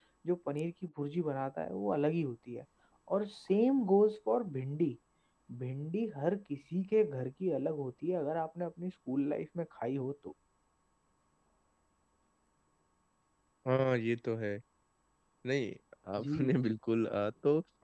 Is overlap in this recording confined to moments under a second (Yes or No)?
Yes